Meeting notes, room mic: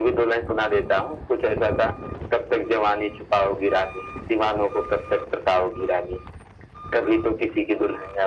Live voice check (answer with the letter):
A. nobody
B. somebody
A